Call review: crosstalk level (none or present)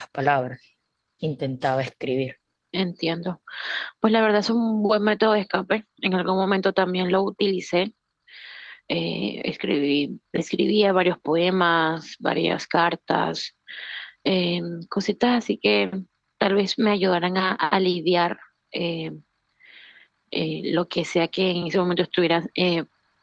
none